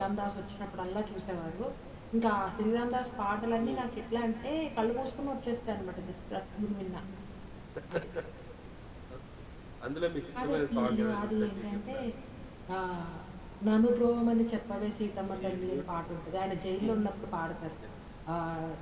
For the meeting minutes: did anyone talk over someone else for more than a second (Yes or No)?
Yes